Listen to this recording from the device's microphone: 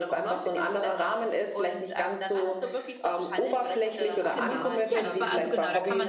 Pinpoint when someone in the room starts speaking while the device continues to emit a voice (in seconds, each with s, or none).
4.3 s